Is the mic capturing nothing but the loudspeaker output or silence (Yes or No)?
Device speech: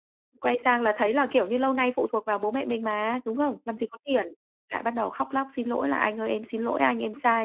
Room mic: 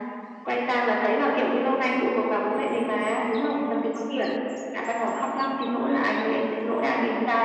Yes